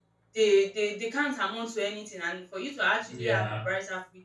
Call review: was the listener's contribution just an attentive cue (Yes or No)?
Yes